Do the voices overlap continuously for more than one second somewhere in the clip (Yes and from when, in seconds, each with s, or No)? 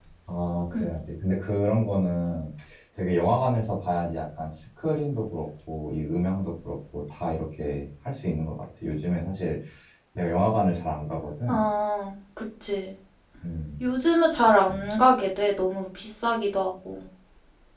No